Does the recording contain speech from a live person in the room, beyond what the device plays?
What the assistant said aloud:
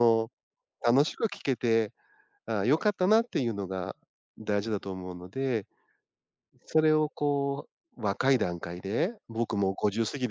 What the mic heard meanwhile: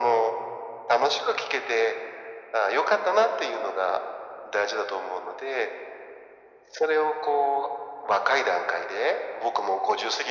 No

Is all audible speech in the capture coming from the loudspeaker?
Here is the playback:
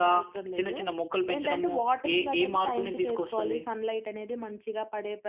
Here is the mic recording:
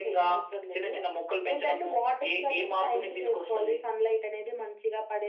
Yes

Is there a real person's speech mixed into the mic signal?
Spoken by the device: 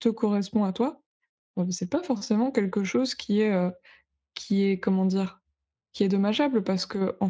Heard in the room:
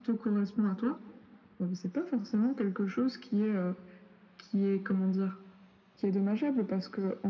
No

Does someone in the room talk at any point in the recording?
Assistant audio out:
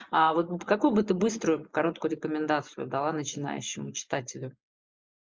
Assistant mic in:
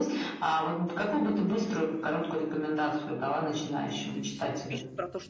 Yes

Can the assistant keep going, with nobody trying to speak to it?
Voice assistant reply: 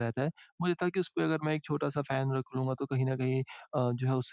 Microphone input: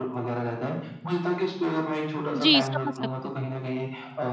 No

